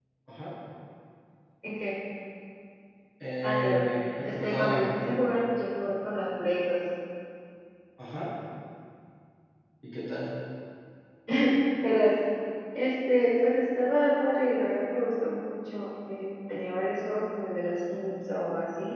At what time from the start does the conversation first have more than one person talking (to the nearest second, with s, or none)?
3 s